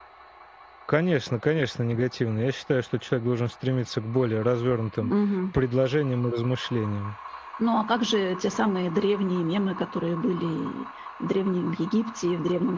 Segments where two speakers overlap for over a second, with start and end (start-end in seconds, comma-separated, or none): none